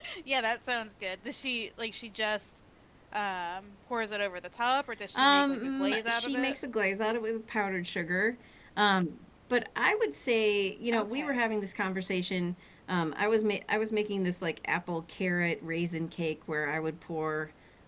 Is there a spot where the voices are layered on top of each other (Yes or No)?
Yes